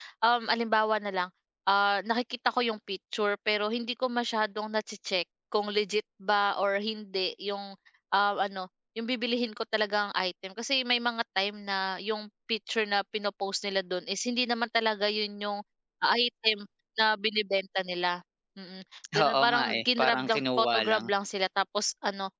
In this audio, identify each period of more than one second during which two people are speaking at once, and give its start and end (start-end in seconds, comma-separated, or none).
19.2-21.0